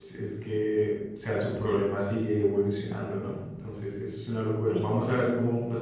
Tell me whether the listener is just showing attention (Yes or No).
Yes